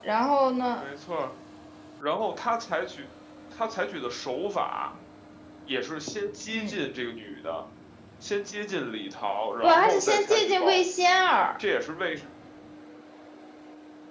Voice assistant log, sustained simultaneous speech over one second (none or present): present